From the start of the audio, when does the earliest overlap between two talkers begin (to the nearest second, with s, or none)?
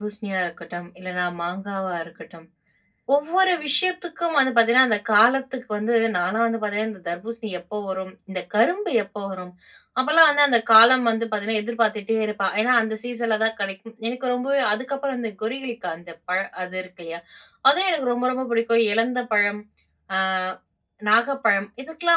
none